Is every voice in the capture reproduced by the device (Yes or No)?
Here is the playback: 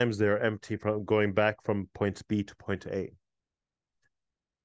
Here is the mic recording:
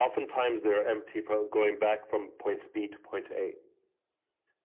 Yes